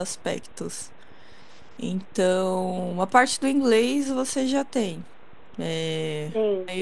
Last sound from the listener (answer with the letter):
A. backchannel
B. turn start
A